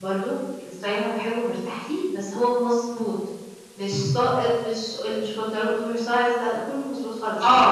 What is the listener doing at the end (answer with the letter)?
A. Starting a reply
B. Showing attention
A